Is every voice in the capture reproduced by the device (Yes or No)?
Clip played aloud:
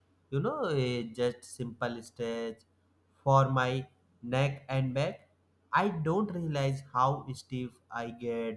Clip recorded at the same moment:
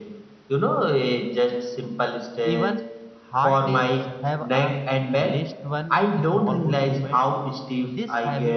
No